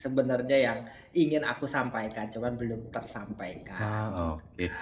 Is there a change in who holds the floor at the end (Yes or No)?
Yes